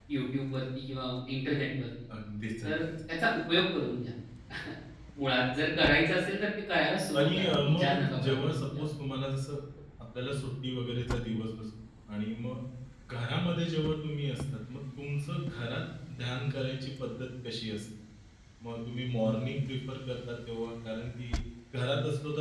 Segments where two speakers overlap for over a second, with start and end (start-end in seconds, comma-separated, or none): 7.2-8.9